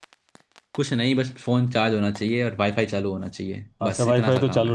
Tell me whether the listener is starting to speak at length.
Yes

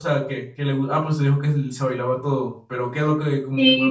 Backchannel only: No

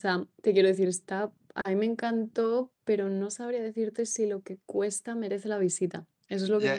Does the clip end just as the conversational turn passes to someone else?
Yes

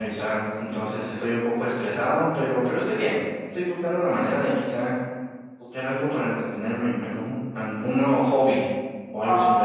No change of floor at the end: No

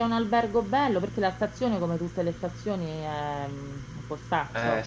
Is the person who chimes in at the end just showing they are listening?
No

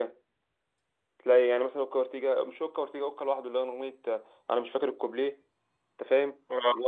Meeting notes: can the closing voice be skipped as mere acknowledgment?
No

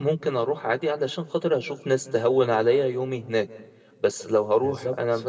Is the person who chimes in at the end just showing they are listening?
Yes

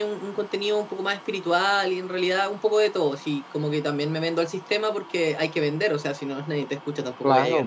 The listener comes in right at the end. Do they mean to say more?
Yes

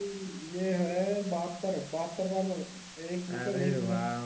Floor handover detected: Yes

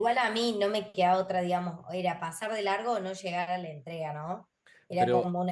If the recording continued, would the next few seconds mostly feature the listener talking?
No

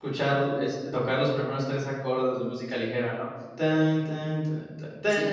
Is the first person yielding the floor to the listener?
Yes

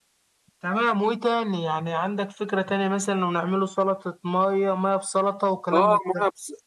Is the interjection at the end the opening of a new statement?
Yes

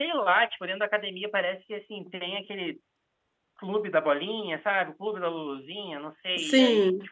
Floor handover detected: No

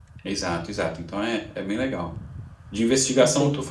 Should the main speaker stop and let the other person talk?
No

